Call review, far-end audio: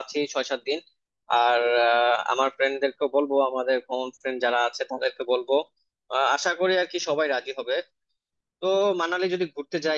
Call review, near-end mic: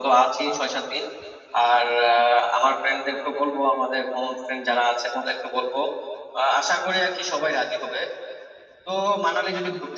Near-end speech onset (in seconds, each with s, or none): none